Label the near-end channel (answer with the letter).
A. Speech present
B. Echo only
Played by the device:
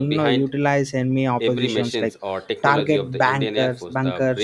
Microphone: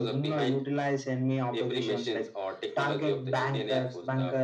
B